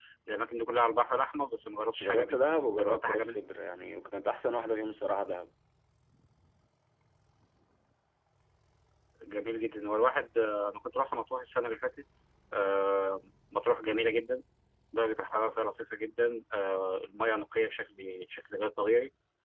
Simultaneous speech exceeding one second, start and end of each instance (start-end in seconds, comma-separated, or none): 2.0-3.5